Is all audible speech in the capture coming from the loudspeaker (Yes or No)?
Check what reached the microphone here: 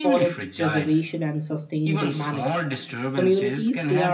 No